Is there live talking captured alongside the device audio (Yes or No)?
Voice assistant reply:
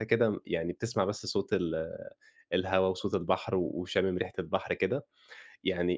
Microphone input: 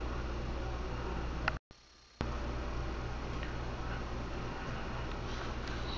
No